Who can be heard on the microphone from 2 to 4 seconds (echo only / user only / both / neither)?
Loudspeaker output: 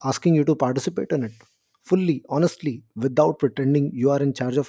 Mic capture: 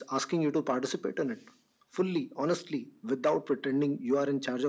echo only